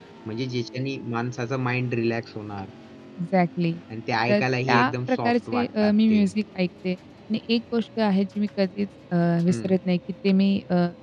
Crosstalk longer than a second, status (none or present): present